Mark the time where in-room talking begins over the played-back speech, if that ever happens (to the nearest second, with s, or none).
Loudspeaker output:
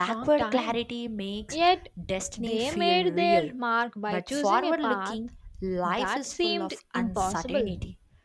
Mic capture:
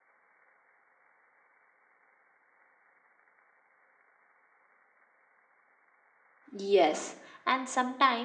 7 s